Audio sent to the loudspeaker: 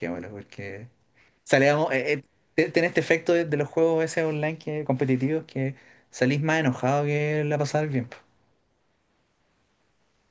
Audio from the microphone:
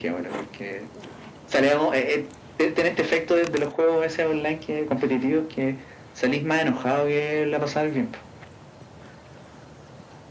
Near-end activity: none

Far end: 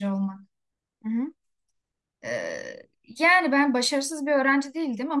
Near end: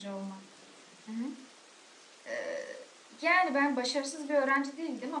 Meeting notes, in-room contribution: none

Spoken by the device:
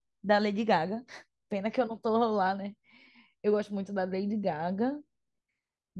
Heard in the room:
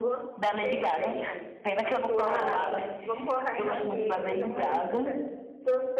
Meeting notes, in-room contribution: present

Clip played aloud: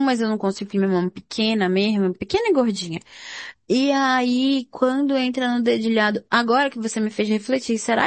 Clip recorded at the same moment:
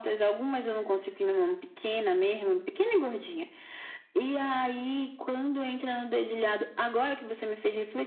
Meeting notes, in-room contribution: none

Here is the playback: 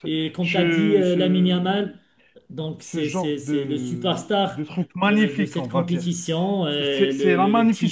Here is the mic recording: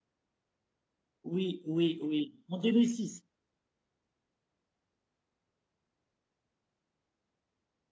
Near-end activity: present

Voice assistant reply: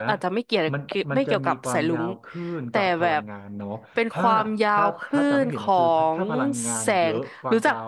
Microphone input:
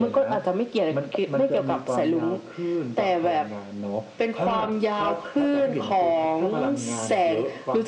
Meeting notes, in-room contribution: none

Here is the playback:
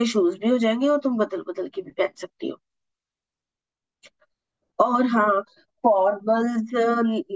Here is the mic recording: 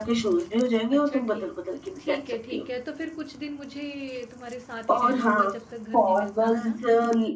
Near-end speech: present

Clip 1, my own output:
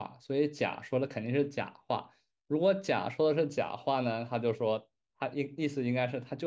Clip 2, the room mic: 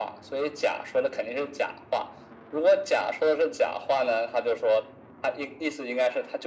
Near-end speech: none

